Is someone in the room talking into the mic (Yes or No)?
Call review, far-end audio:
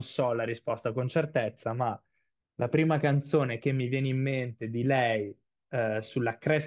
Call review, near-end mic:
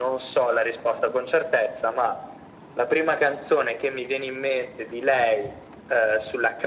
No